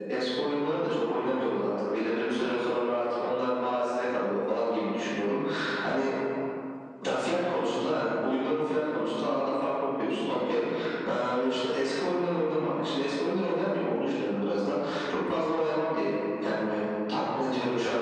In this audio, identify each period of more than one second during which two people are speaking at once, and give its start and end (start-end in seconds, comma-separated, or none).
none